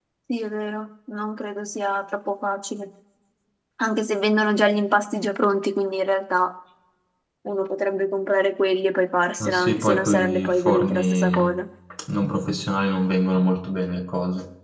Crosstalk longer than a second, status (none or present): present